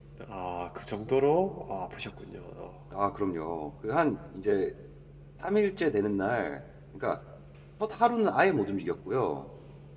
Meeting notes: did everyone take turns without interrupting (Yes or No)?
Yes